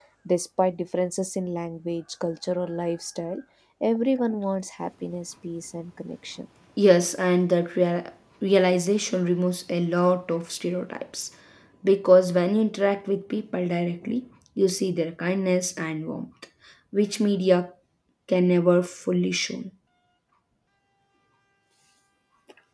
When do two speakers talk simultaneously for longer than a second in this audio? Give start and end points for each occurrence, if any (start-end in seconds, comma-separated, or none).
none